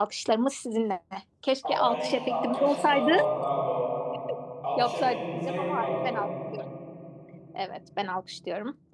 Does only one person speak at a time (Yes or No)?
No